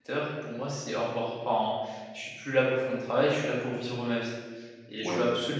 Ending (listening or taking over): listening